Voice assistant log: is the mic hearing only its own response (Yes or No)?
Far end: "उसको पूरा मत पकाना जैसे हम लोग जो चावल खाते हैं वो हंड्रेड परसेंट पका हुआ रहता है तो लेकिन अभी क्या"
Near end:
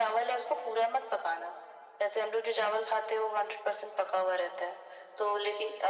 Yes